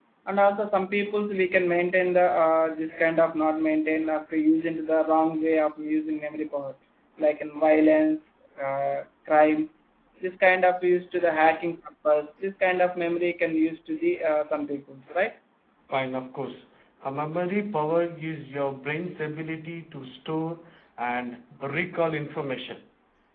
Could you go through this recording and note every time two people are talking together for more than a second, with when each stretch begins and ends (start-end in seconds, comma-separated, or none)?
none